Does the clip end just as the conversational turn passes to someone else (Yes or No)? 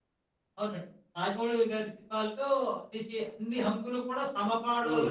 Yes